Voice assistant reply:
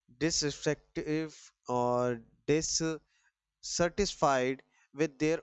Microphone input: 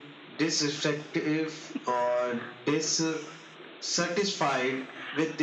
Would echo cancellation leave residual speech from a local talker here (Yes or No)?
No